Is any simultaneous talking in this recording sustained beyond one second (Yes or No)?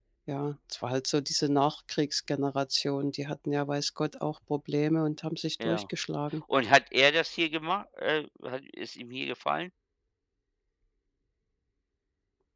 No